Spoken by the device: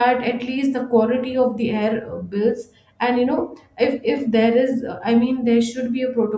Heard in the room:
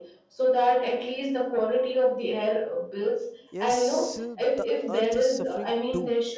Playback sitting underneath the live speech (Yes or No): No